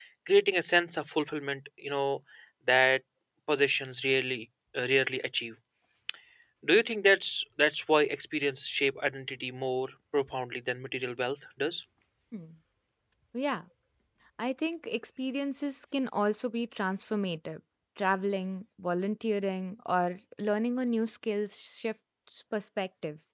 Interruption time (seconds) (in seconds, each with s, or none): none